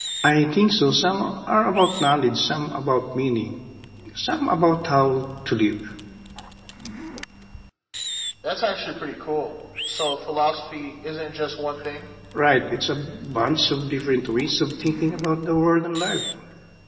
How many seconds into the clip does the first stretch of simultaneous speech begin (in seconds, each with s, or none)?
none